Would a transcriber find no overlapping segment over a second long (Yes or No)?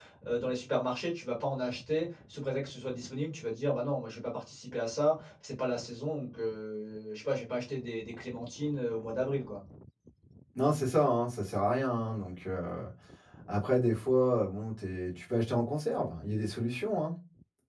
Yes